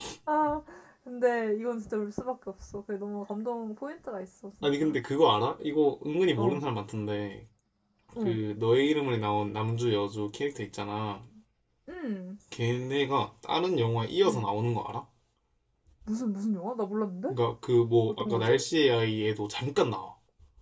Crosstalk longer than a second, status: none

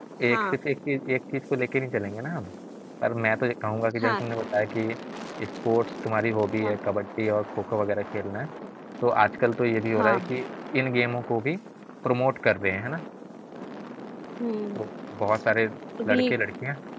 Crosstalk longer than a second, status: none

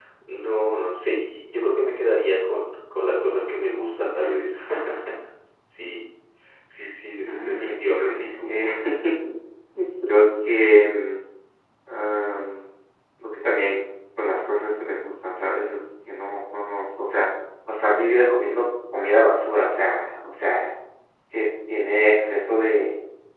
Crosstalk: present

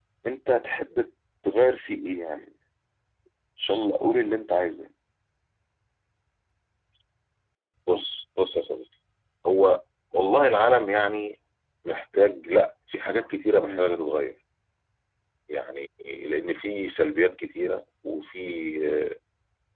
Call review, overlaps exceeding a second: none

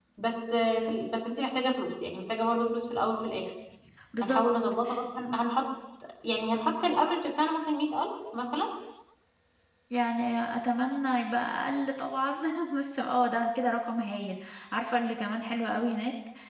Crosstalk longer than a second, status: none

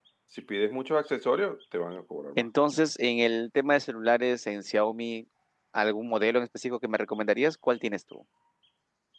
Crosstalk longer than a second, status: none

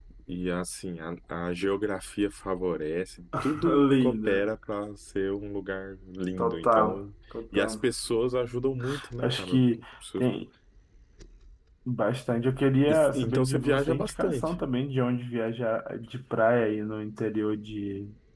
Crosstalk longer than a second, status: present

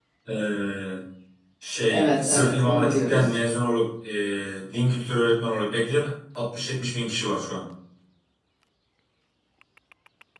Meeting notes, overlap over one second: present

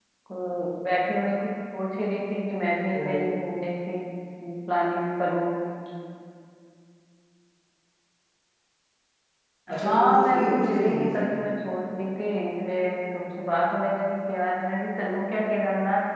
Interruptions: present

